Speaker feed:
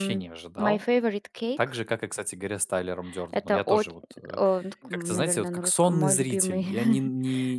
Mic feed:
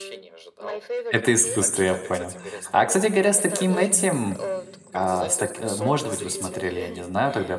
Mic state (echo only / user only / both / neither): both